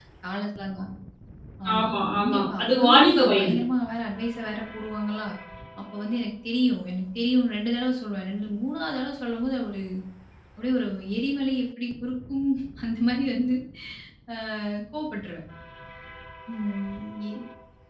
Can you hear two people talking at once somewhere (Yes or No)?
Yes